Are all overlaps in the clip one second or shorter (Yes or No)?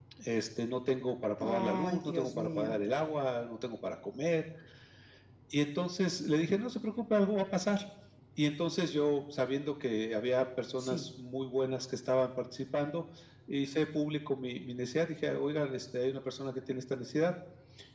No